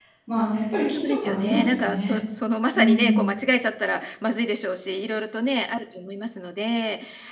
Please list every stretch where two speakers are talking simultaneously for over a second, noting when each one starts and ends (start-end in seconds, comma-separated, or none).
0.9-2.2